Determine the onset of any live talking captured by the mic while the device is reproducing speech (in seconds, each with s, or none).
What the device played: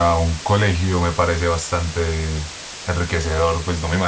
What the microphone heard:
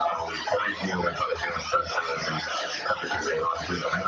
none